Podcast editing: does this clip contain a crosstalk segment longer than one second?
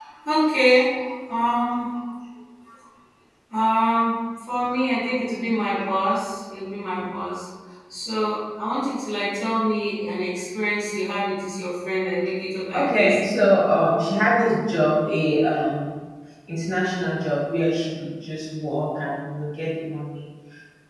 No

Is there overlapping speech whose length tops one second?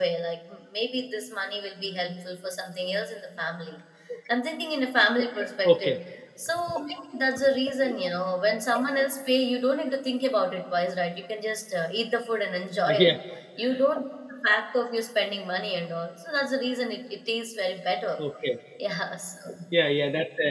No

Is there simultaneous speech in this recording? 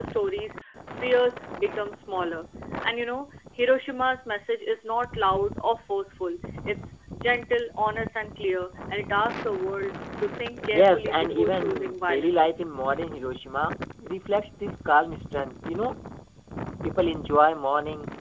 Yes, from 10.7 s

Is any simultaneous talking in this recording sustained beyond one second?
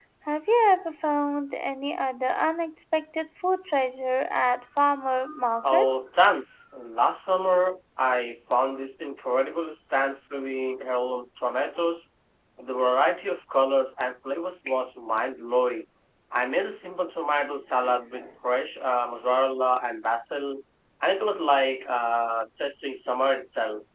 No

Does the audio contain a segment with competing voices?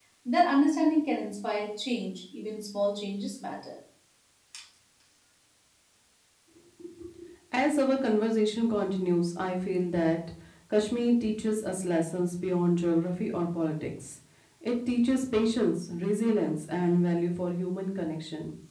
No

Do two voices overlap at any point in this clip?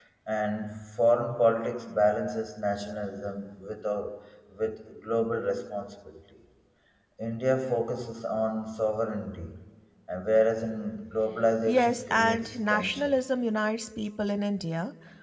Yes, from 11.7 s

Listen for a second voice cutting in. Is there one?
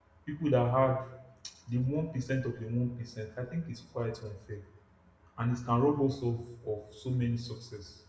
No

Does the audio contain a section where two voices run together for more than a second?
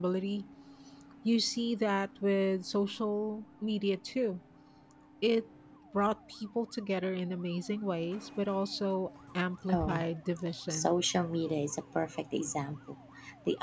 No

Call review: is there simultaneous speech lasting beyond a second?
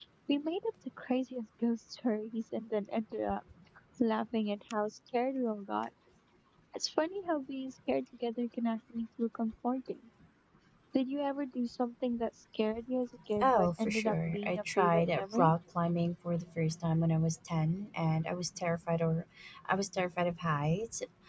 Yes, from 13.4 s

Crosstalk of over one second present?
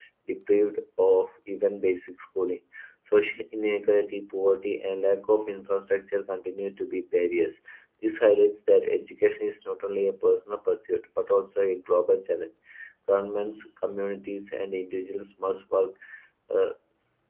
No

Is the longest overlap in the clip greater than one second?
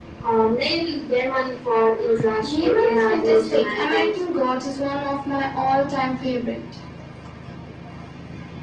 Yes, from 2.5 s

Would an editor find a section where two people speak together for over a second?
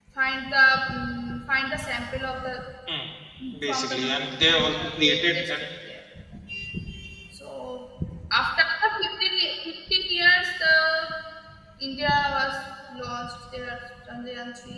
Yes, from 3.7 s

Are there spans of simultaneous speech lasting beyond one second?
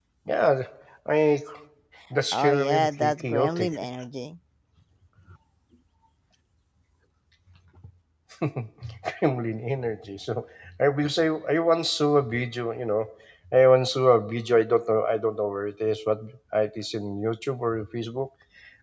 Yes, from 2.3 s

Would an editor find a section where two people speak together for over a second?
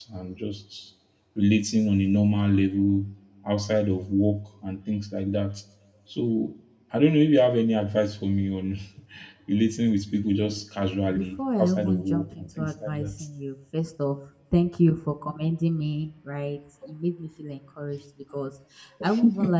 Yes, from 11.1 s

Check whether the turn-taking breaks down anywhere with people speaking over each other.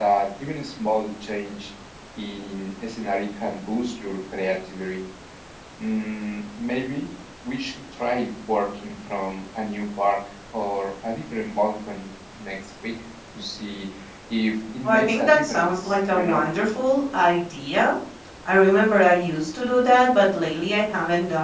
Yes, from 14.8 s

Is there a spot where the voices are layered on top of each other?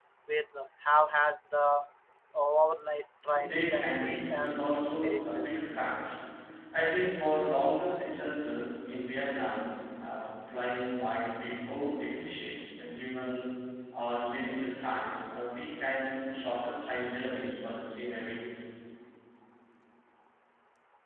Yes, from 3.3 s

